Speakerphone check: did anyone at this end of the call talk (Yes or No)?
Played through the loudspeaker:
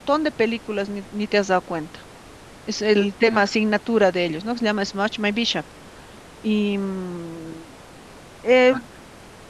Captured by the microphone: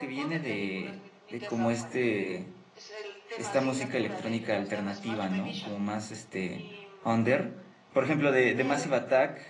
Yes